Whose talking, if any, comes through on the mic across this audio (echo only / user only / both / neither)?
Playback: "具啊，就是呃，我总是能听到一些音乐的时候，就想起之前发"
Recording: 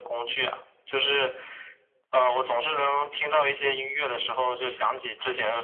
echo only